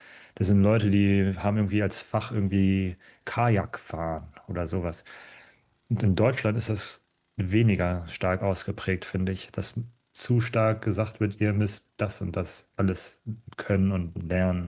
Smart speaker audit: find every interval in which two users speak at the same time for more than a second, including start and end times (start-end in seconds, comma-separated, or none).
none